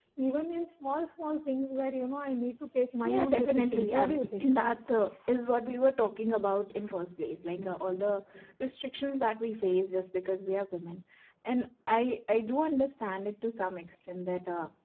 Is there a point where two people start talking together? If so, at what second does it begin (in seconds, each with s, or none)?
3.0 s